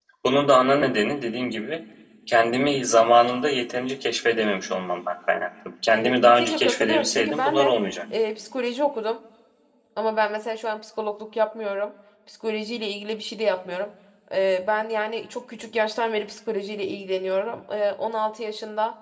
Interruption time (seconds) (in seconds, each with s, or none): 5.9 s